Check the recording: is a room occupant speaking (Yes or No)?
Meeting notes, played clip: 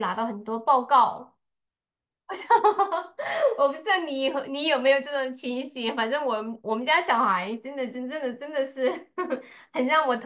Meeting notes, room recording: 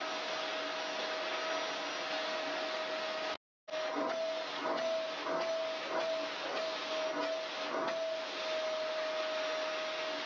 No